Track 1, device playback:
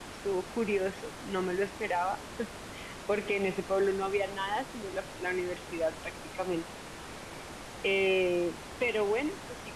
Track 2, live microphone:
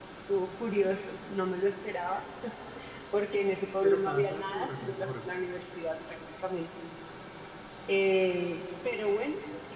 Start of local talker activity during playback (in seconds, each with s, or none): 3.8 s